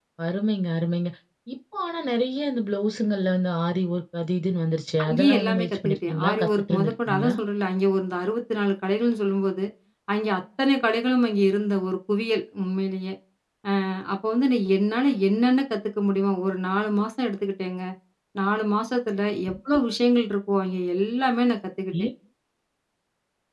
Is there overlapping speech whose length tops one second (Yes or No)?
Yes